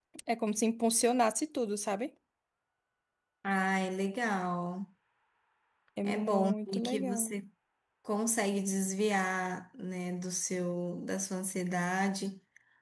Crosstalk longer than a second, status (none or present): present